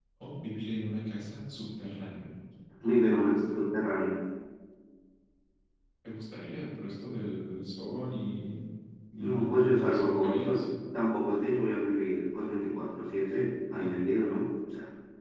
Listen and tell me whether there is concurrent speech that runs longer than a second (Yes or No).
Yes